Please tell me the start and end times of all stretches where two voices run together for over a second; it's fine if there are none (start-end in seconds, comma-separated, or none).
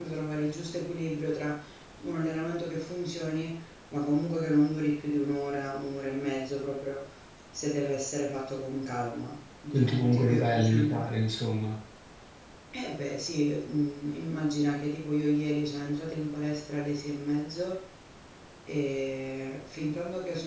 9.7-11.1